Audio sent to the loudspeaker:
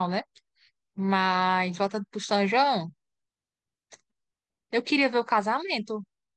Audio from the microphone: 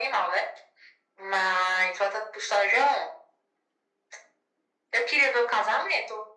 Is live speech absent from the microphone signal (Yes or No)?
Yes